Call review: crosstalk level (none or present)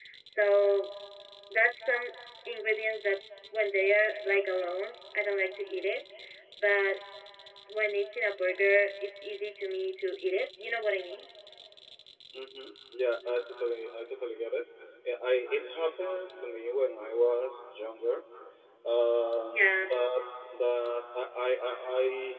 none